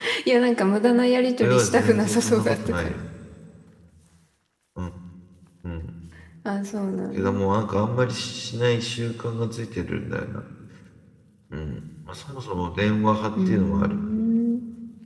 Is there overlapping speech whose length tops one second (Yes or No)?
Yes